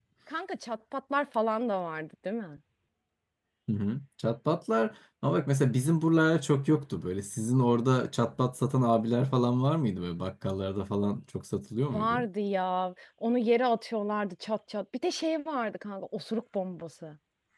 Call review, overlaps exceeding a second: none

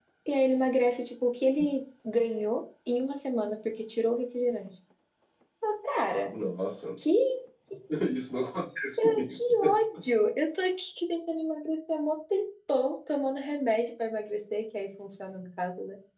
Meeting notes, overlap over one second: none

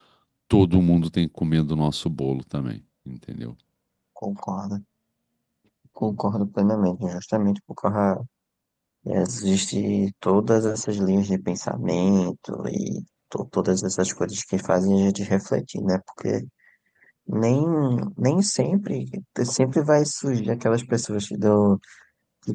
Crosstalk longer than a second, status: none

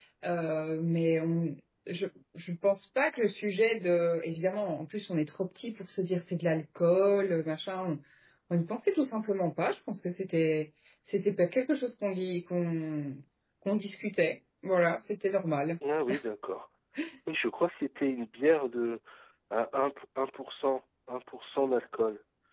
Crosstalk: none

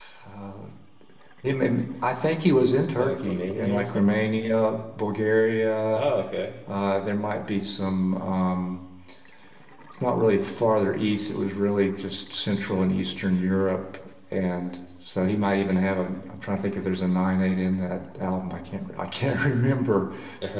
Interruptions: present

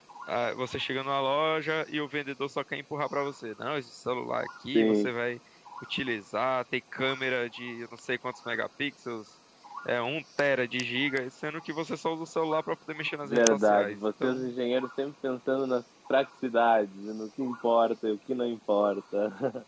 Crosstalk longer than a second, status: present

